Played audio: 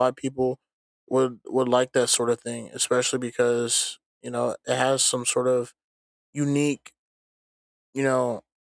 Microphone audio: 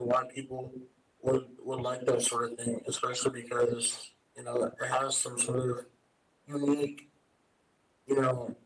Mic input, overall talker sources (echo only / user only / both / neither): echo only